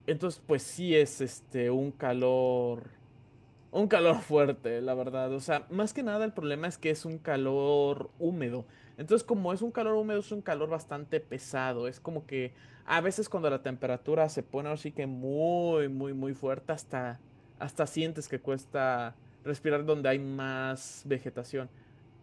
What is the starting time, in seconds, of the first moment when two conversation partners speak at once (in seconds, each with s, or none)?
none